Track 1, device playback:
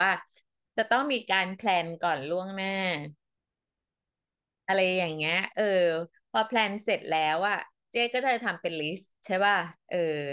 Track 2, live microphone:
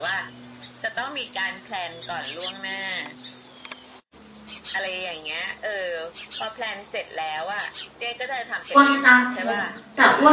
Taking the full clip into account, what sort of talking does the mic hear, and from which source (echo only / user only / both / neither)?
both